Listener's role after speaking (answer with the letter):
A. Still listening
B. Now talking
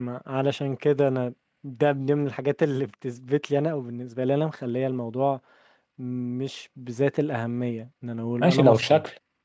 B